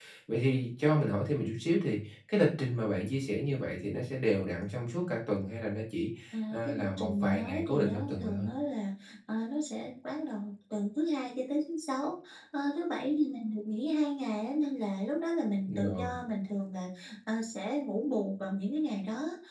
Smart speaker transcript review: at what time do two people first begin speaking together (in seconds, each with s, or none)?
6.5 s